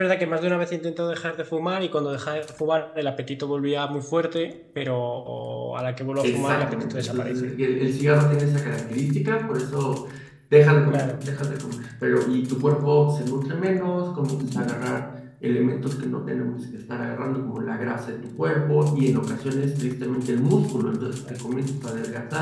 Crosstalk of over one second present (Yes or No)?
Yes